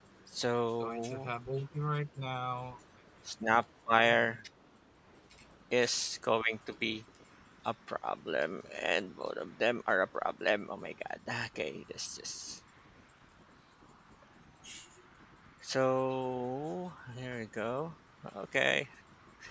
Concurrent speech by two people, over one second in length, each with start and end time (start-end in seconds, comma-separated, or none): none